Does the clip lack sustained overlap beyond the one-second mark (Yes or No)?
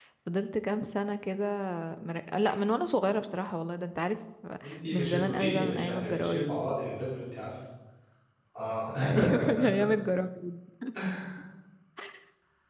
No